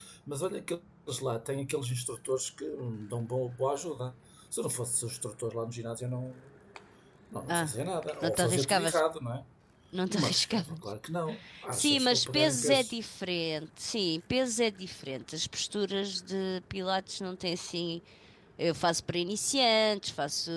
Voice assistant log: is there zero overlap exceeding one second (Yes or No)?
No